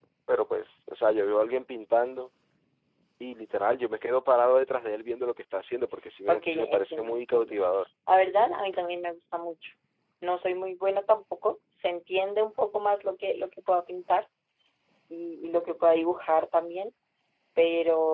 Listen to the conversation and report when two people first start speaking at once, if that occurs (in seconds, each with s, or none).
6.3 s